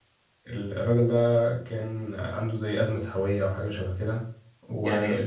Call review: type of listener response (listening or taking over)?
listening